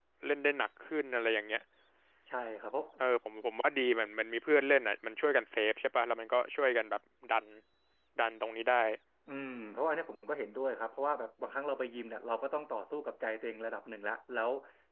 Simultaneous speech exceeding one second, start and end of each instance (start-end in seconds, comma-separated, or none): none